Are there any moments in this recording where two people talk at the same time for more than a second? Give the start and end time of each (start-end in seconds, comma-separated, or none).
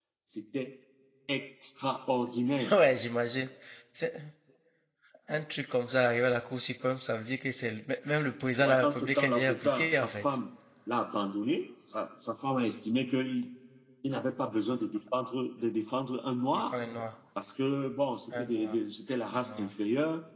8.6-10.2